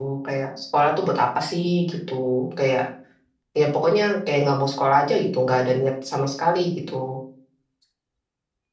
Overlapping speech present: No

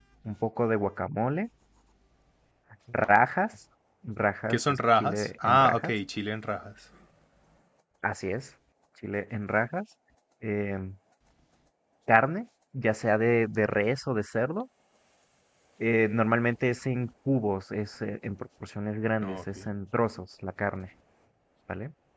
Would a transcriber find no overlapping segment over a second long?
No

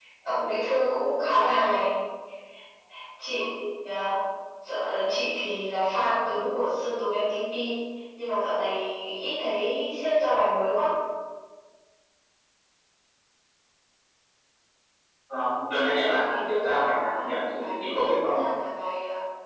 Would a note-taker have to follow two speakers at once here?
Yes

